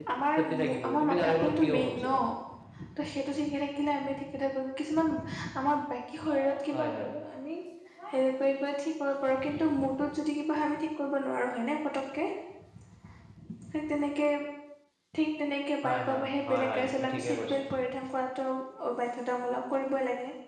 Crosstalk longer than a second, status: present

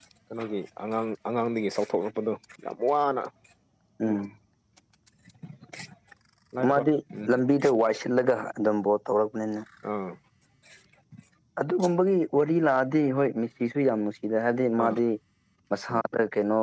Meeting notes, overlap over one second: none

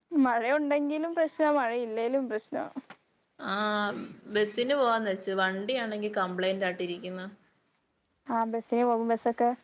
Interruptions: none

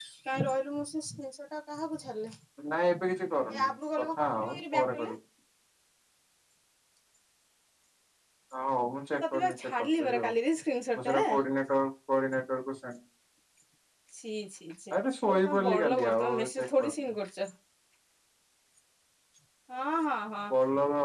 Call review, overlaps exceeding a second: present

